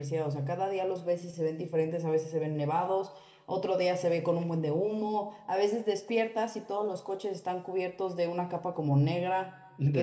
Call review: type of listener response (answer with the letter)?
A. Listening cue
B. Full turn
A